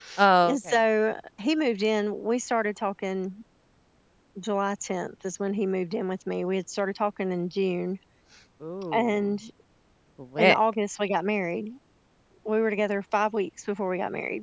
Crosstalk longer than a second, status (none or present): none